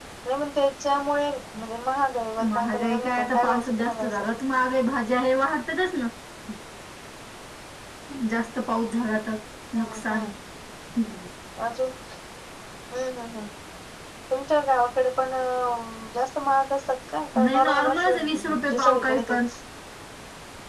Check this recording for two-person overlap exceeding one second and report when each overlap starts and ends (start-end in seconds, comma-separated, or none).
2.6-4.2, 17.4-19.4